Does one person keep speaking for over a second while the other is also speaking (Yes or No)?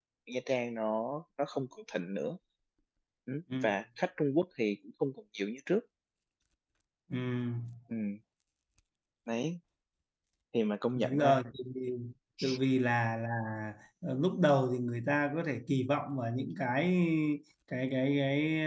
No